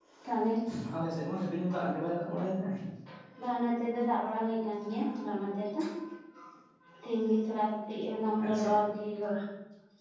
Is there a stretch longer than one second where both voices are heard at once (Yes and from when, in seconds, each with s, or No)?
No